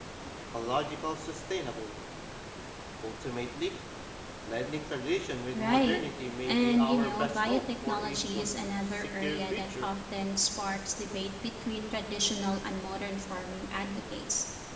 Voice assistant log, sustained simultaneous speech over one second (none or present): present